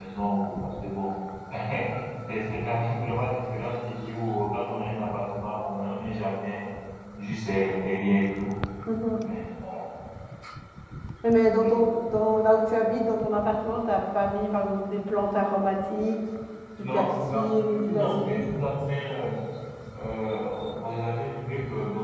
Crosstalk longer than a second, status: present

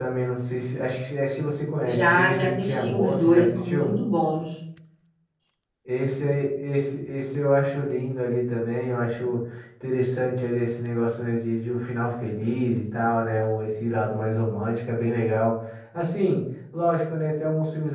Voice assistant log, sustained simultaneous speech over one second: present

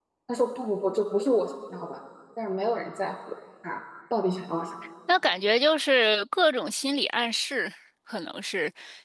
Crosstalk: none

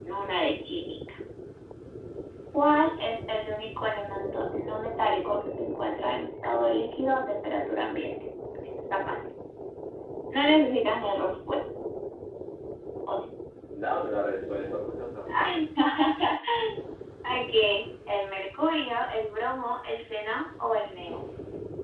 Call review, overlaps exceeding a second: none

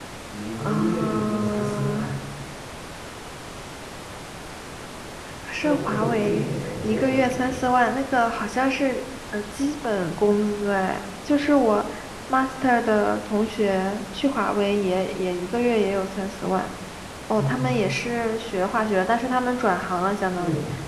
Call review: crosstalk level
present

